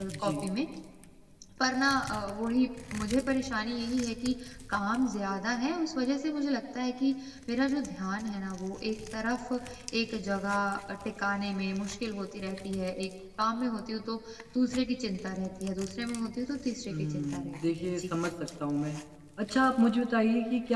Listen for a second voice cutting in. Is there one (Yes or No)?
Yes